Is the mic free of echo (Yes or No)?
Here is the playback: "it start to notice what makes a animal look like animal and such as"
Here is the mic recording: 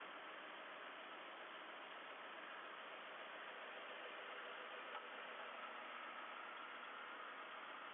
Yes